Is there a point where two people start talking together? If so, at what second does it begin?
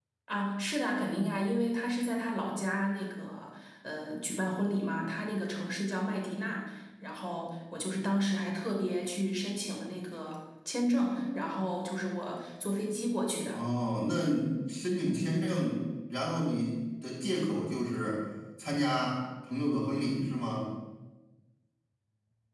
none

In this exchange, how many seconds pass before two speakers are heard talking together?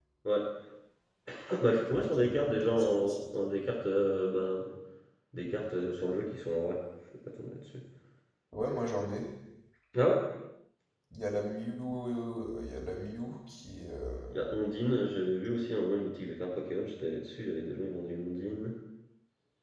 1.8 s

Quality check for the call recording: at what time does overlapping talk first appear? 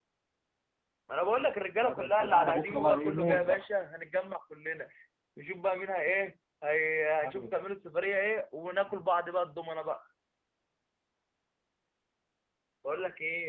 1.7 s

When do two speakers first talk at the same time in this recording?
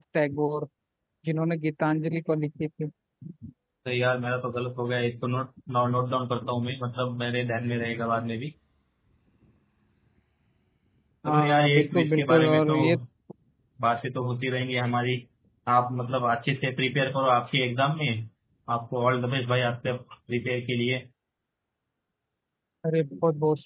11.2 s

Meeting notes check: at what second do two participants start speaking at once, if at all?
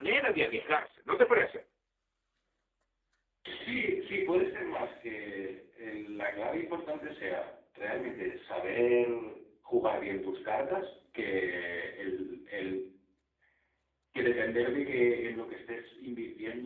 none

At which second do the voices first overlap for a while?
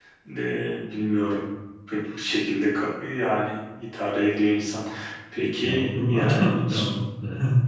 5.6 s

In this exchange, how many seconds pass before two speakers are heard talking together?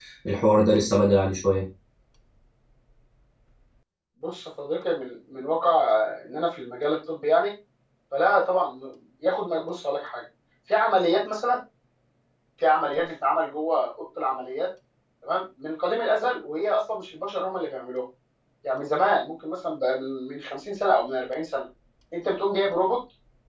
none

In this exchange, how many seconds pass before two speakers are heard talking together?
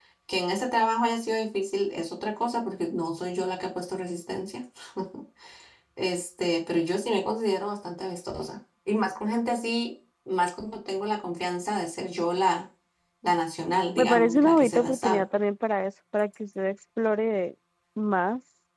14.0 s

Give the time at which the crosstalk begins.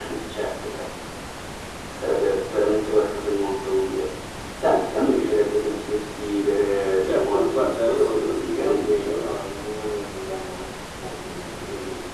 7.0 s

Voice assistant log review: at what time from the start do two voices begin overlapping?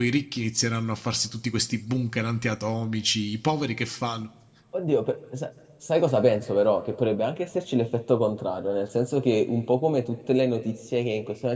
none

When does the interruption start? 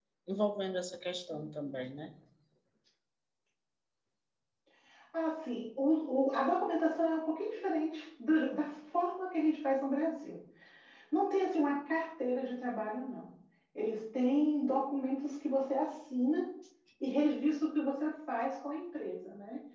none

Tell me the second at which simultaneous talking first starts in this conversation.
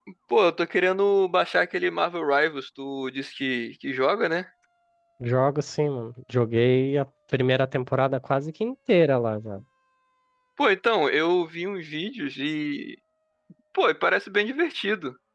none

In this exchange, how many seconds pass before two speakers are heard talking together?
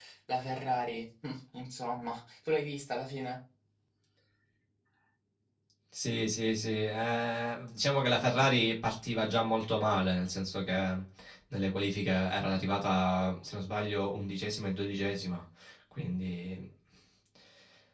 none

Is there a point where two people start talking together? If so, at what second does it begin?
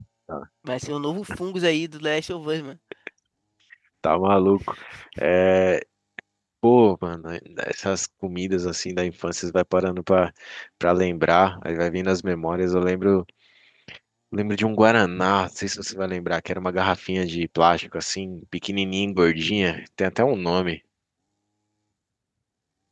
none

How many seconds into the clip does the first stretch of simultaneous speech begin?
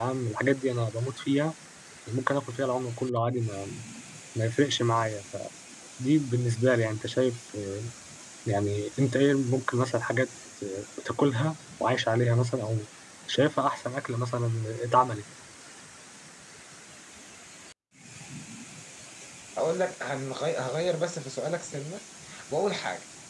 none

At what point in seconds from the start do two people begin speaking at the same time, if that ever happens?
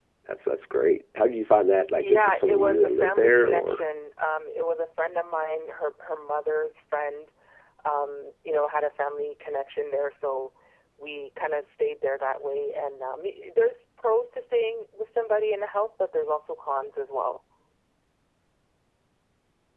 2.0 s

